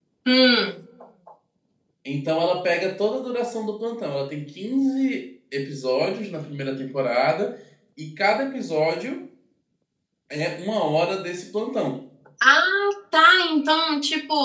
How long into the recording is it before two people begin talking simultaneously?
none

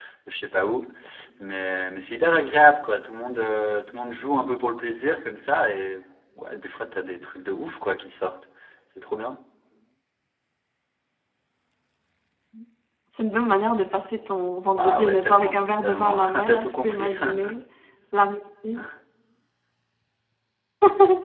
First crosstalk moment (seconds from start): 14.8 s

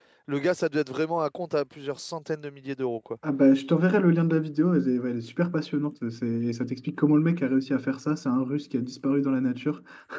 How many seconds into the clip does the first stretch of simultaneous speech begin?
none

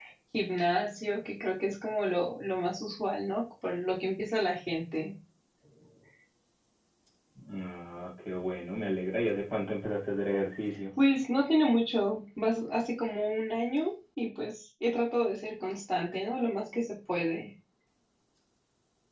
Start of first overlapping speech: none

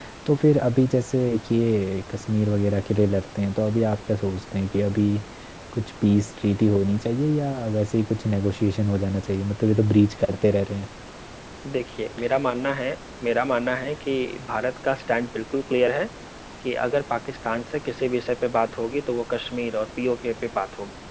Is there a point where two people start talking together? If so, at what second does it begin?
none

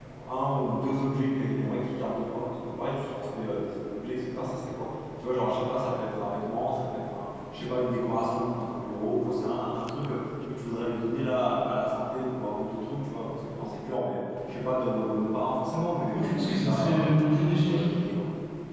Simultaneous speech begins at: 16.1 s

